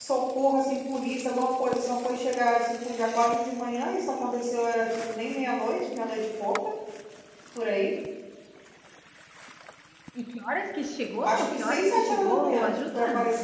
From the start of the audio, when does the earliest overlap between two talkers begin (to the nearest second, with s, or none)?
11 s